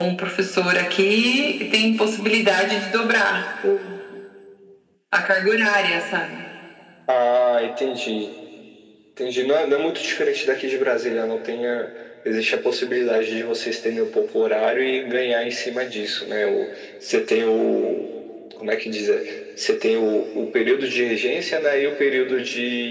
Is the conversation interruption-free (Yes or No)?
Yes